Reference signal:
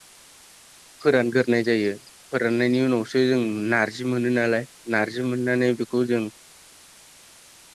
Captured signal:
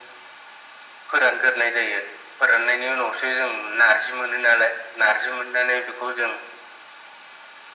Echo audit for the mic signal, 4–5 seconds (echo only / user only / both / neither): echo only